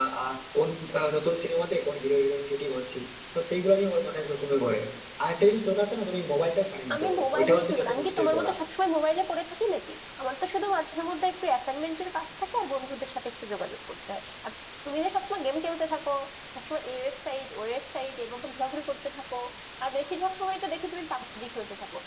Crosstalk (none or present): present